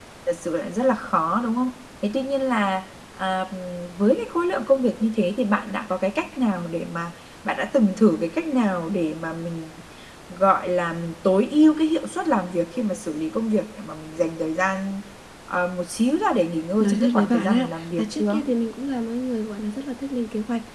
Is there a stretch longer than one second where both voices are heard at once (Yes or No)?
Yes